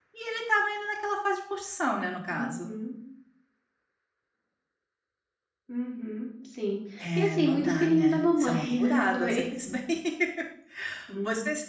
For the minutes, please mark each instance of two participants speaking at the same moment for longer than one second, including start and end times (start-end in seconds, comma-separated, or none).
7.0-9.4